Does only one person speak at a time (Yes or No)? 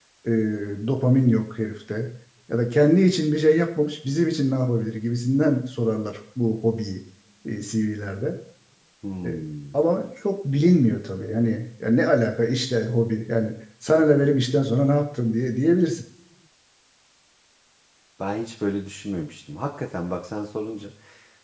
Yes